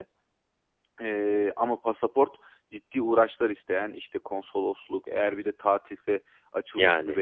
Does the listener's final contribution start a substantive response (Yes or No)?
No